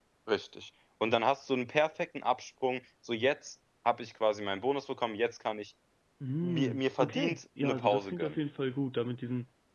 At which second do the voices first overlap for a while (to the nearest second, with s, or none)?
6 s